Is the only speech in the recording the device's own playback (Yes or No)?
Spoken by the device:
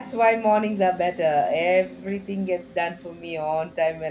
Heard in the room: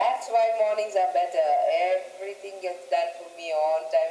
Yes